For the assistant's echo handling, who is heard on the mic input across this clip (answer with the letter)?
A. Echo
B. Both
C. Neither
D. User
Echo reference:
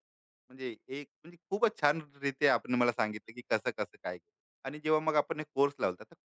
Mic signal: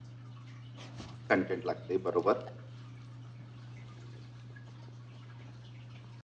D